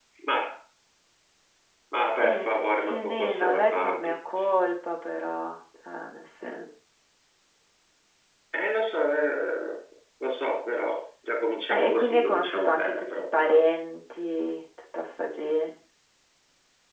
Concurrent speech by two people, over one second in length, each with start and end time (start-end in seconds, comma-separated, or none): 2.2-4.1, 11.7-13.6